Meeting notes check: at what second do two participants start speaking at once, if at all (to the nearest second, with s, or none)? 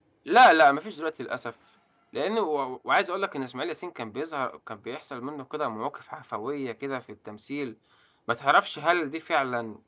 none